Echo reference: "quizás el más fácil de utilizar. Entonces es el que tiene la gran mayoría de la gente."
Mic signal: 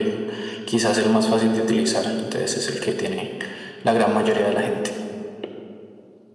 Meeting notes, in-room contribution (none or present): none